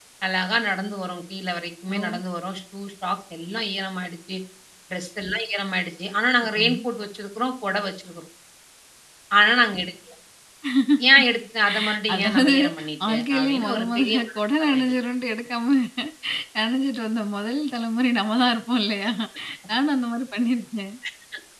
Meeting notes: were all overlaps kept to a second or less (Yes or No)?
No